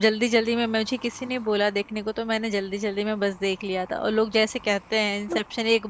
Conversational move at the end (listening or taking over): listening